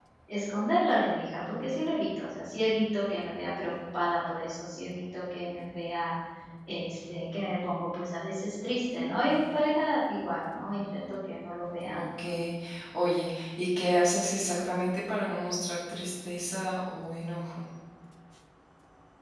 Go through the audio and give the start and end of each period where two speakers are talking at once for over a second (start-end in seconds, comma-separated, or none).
none